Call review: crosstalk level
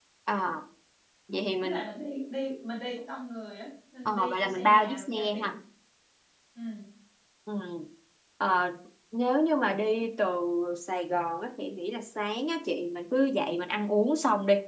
present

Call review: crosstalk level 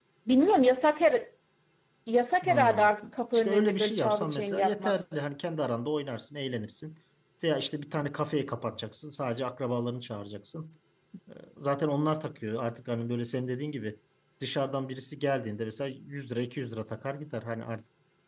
present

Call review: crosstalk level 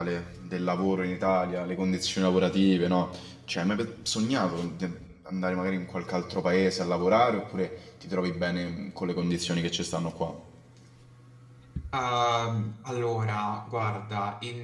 none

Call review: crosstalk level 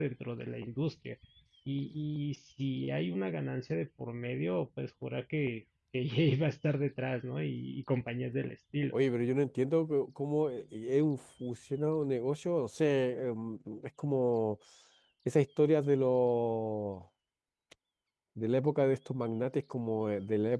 none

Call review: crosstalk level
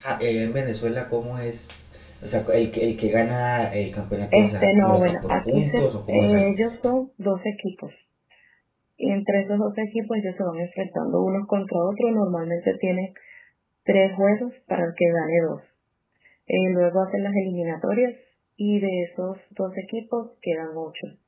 present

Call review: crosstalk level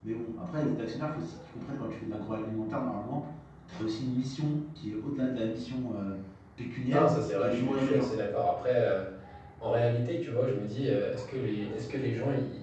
present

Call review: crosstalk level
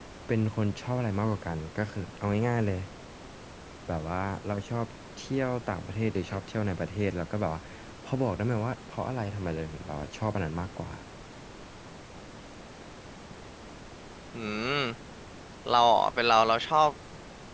none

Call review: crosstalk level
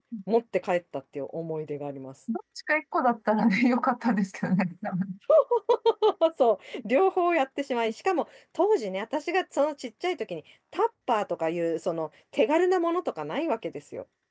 none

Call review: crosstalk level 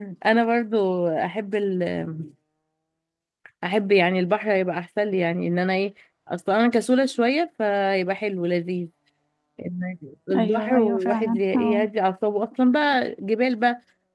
present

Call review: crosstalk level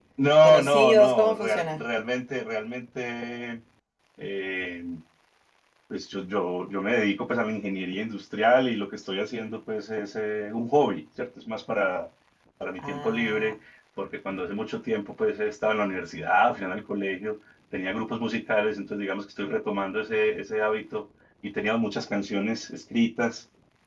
present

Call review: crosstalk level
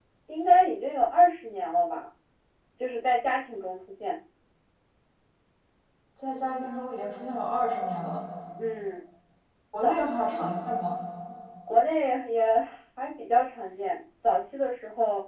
none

